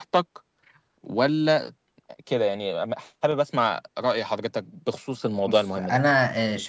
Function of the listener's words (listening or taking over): taking over